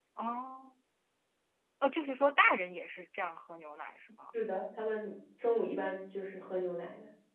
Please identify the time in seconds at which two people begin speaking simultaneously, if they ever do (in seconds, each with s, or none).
none